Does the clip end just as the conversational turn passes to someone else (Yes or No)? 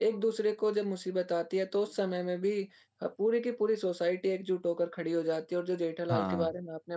No